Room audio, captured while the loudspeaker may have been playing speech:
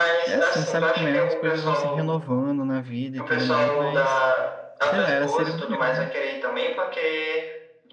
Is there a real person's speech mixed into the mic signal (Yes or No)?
Yes